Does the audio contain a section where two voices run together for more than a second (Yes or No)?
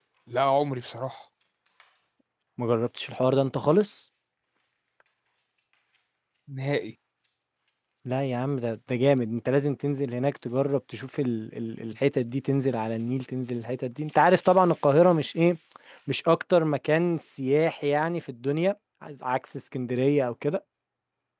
No